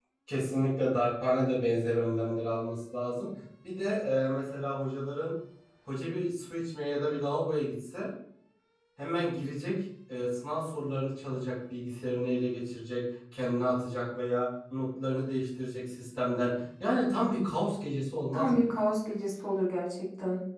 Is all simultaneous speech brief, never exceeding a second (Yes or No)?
Yes